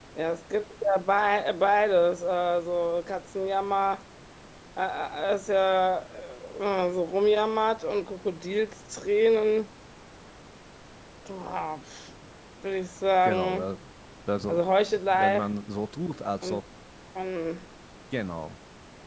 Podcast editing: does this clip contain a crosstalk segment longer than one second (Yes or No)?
No